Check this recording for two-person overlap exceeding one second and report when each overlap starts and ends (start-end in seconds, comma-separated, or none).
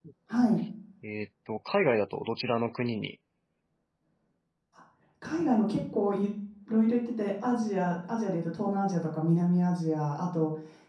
none